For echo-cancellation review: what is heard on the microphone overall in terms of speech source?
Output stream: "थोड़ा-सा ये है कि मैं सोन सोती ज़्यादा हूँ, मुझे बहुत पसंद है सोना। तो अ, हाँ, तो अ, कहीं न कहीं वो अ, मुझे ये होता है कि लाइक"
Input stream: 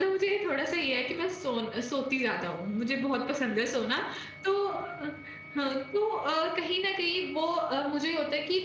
echo only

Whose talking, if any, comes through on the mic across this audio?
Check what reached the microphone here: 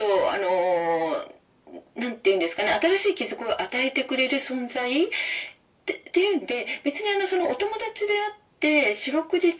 echo only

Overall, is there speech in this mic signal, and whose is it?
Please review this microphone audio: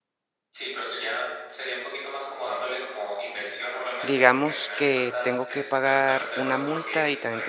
both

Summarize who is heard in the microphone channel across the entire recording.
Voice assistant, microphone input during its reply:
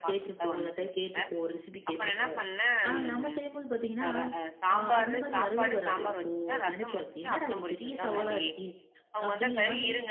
both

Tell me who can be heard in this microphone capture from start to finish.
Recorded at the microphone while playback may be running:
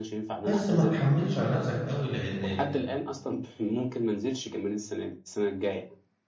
both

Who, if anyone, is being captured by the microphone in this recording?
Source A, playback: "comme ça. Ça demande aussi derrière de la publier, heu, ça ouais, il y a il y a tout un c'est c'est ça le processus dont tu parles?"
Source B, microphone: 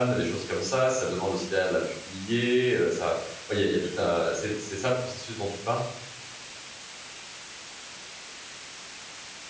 echo only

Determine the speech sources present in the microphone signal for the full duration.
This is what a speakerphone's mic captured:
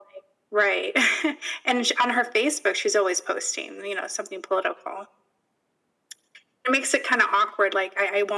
echo only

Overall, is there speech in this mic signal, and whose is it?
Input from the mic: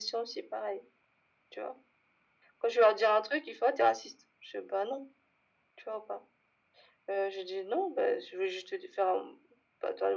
echo only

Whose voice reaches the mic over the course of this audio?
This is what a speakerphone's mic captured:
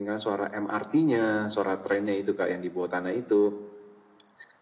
echo only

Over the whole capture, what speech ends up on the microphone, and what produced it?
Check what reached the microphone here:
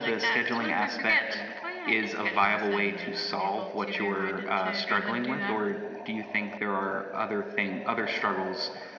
echo only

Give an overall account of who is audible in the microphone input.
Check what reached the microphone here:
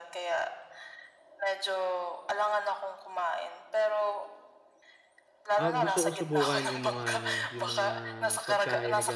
both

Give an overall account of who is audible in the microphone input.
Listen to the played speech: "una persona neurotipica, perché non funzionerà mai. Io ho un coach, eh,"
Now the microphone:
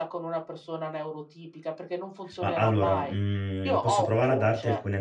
both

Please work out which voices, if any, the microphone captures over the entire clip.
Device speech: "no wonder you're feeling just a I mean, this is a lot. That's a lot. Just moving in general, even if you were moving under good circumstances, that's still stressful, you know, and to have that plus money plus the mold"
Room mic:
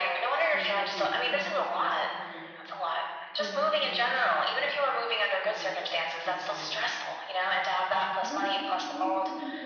both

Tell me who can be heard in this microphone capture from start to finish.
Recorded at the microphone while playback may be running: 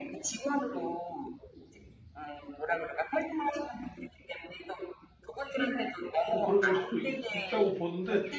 both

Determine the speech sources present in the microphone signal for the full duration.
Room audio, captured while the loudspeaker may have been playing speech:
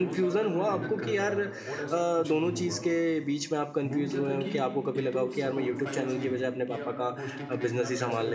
both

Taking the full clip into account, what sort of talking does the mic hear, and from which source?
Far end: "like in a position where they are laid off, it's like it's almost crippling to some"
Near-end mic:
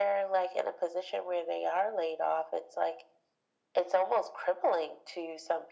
echo only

